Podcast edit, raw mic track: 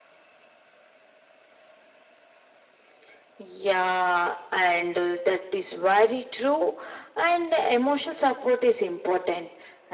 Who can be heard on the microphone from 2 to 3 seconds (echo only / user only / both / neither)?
neither